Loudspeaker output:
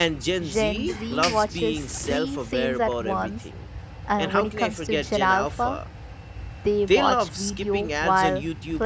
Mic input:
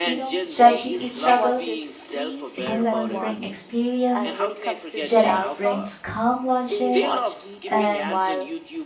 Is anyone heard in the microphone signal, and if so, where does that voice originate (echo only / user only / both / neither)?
both